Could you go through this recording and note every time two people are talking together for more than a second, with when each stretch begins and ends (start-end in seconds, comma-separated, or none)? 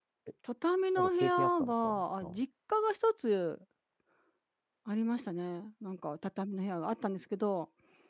1.0-2.4